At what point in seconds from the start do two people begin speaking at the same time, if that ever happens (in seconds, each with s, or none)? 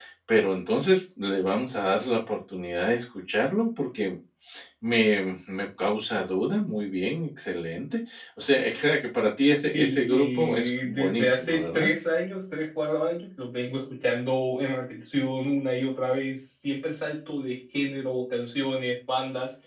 9.5 s